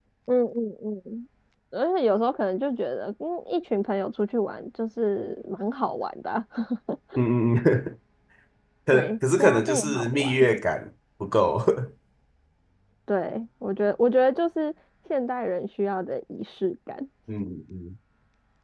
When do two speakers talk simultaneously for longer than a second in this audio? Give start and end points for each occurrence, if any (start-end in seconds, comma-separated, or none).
8.9-10.5